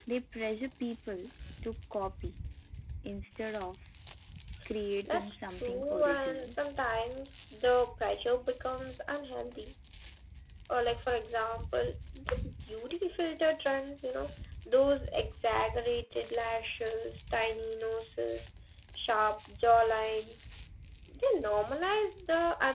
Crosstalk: present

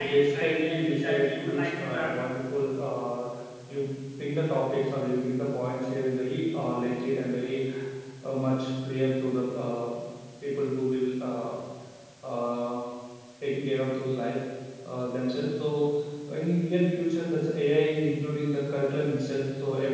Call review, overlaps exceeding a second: present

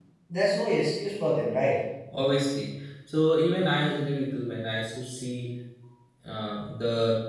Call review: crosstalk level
none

